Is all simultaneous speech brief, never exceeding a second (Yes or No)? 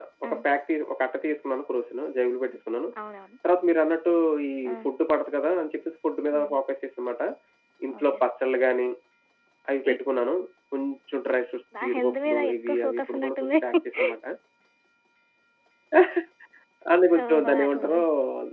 No